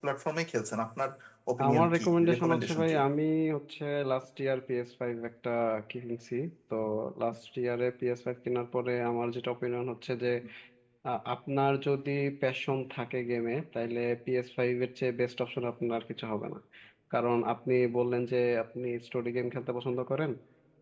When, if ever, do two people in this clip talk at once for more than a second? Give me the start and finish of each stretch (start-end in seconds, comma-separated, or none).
1.6-2.9